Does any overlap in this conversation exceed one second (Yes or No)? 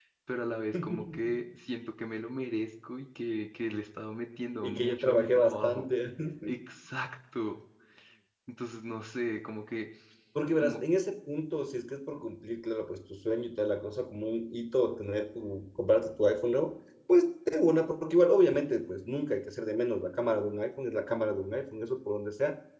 Yes